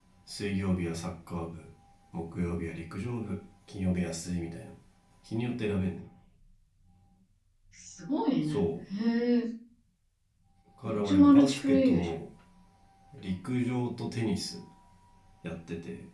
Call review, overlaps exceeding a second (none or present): present